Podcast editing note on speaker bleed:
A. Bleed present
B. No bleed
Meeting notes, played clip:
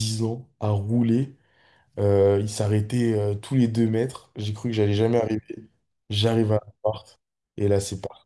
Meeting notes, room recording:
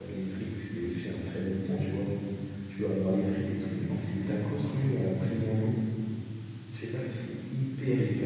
B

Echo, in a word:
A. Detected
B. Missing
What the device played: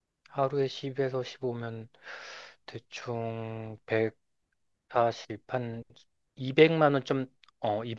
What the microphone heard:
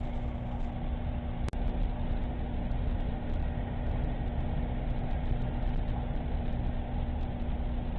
B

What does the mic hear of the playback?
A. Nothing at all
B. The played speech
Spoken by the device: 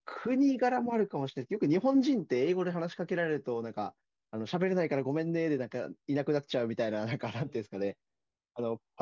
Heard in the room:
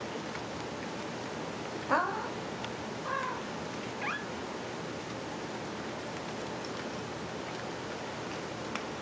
A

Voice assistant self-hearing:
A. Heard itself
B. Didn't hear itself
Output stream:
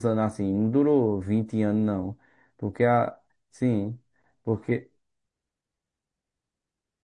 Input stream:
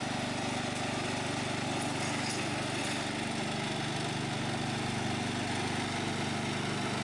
B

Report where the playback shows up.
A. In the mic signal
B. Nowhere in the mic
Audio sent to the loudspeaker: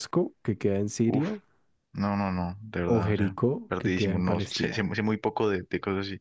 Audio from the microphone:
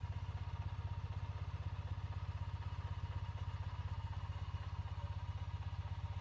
B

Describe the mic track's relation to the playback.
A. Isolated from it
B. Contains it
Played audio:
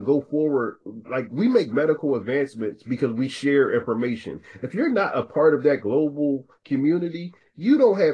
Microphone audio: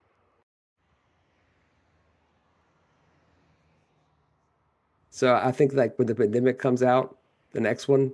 A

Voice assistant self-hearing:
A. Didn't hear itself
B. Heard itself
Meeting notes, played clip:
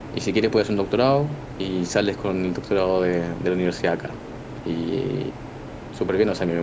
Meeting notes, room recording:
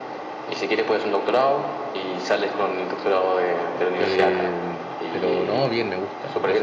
B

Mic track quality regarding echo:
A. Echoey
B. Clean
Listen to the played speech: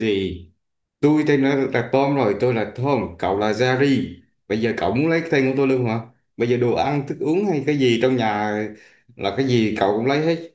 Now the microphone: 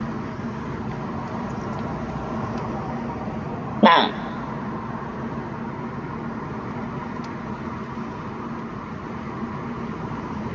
B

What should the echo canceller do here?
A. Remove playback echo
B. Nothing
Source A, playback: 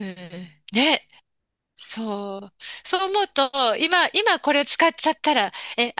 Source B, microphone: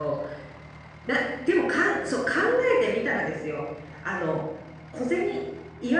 B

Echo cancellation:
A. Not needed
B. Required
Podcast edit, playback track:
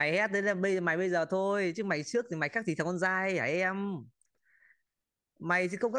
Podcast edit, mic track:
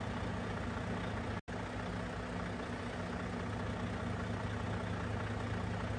A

